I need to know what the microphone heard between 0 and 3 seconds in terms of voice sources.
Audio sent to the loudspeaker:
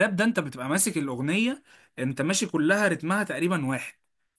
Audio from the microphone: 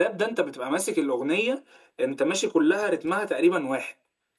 echo only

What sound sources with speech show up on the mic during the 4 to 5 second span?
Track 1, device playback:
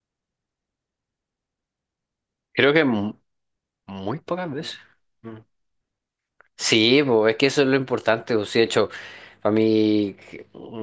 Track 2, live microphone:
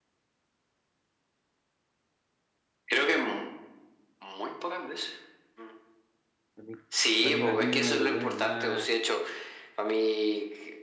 echo only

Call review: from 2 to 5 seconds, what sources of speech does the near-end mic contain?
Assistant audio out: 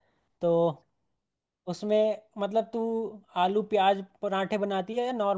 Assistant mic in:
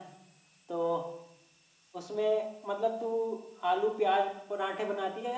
echo only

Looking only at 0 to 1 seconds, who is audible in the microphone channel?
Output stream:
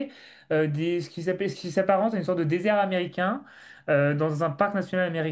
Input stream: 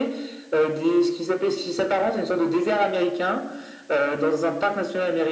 echo only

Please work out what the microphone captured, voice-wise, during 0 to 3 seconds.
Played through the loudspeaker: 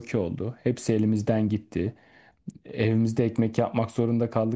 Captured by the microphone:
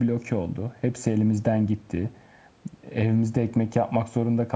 echo only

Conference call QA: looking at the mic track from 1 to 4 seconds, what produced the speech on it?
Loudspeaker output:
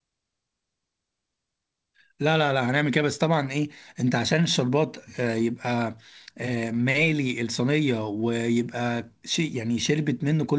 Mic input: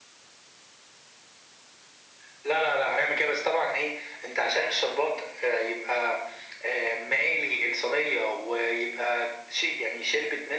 echo only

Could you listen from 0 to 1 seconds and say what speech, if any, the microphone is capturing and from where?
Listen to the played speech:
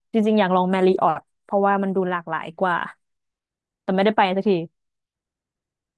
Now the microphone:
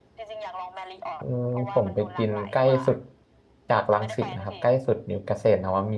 echo only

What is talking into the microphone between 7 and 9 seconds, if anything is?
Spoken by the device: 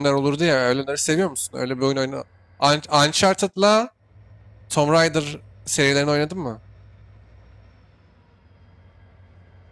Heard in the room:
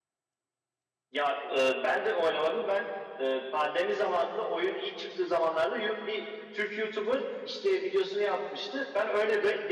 user only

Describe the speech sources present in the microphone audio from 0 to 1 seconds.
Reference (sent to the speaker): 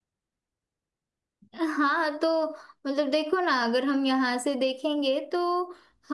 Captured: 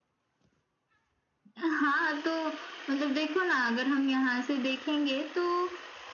neither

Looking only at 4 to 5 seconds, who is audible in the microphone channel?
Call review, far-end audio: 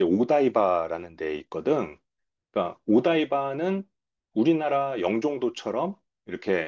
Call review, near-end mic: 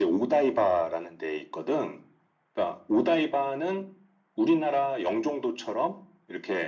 echo only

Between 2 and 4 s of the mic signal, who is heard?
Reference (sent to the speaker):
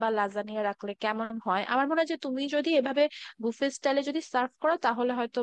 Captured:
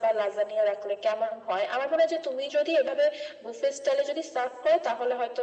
echo only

